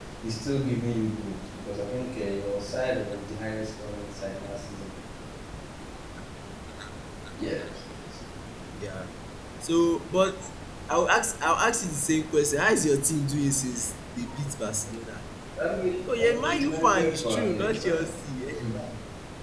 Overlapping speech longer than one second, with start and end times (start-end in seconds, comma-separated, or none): 16.2-18.2